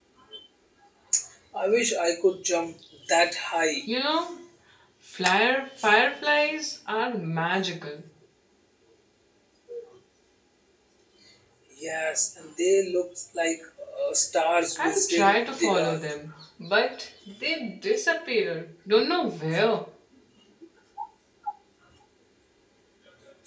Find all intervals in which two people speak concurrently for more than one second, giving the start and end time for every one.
14.8-16.0

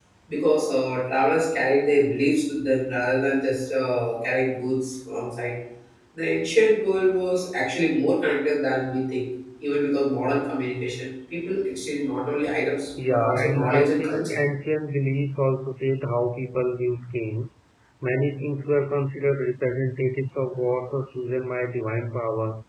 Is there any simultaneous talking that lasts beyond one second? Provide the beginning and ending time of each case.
13.0-14.4

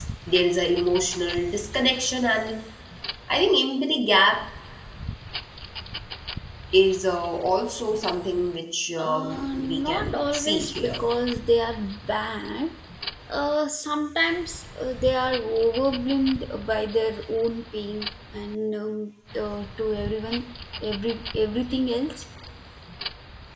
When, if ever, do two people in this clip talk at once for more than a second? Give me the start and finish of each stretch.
9.0-11.1

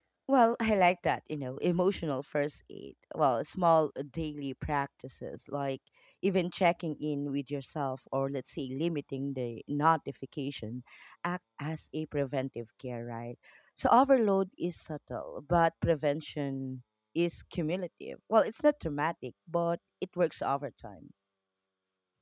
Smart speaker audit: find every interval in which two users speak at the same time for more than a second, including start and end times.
none

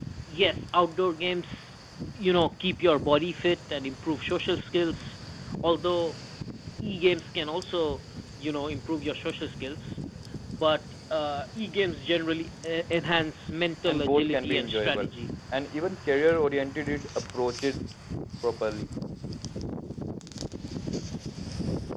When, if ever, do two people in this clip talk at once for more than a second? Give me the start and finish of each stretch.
13.9-15.1

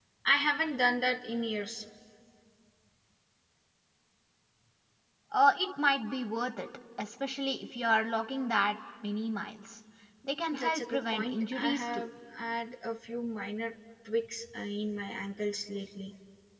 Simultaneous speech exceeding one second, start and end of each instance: 10.5-12.0

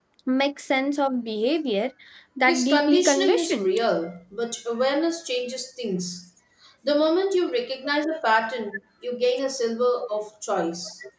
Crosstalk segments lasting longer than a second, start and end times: 2.5-3.7

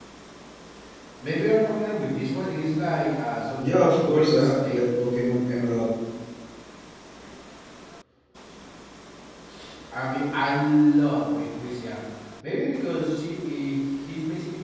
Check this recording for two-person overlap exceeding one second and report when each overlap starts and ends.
3.6-4.8

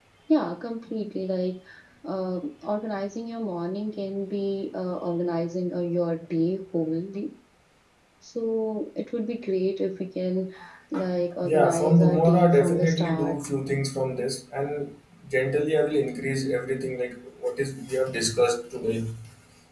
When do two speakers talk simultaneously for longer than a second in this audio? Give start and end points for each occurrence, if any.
11.4-13.4

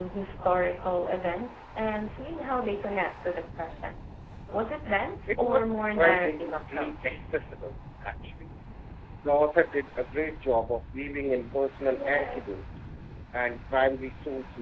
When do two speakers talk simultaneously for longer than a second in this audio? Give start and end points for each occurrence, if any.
5.3-7.2

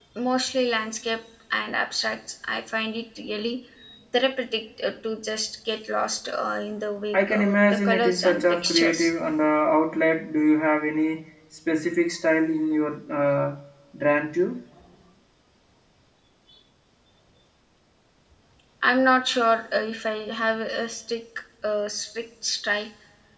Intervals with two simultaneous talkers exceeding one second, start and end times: 7.1-9.1

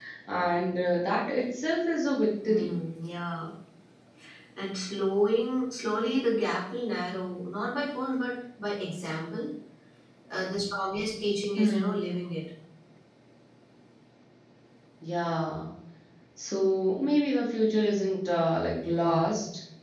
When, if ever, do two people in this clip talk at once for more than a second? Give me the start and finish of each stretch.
none

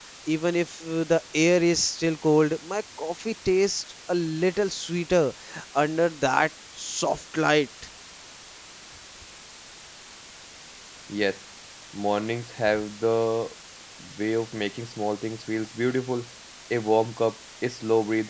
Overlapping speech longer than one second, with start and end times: none

